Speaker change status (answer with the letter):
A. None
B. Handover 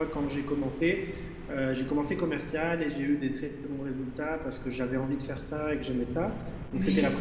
A